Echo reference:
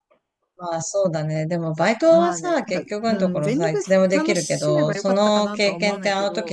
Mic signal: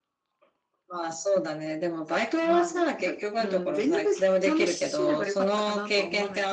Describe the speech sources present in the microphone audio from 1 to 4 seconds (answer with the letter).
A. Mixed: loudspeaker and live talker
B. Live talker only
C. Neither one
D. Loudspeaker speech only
D